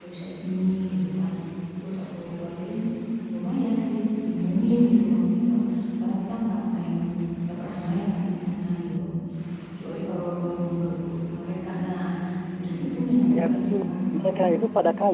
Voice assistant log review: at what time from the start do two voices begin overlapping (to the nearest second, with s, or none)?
13 s